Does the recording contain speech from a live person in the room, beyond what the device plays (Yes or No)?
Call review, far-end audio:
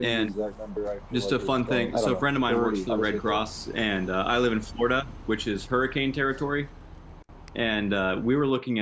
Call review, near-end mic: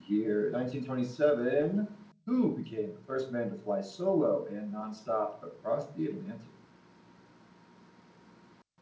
Yes